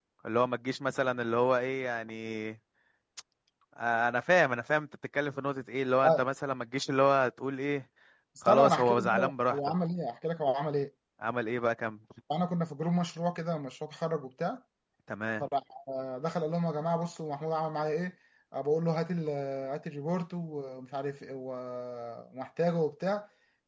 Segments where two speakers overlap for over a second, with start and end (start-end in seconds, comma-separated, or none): 8.4-9.7